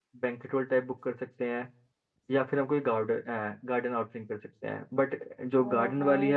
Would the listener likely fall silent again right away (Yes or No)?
Yes